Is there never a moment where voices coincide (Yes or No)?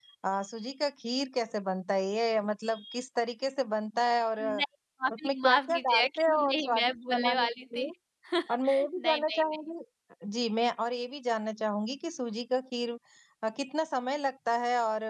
No